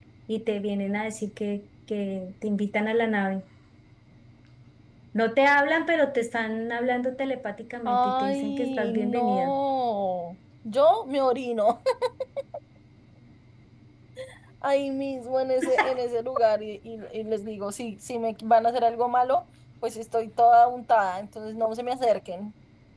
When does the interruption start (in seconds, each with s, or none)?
7.8 s